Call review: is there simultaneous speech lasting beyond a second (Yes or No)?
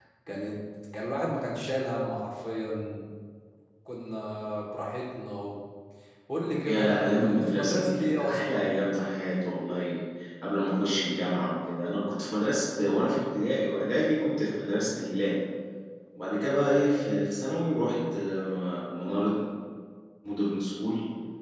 Yes